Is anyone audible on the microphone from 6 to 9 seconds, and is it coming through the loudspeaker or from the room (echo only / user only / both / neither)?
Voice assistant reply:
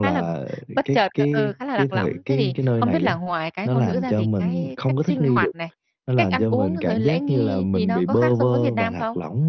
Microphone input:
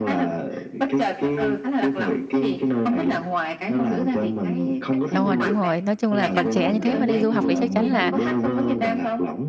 both